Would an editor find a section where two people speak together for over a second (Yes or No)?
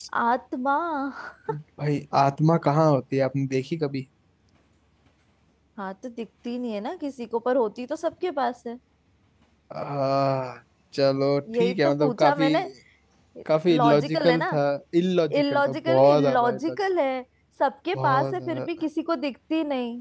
Yes